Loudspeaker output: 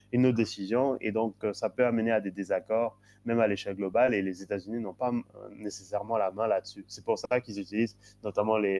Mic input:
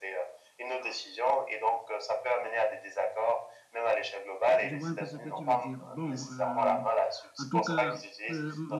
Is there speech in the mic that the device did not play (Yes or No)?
Yes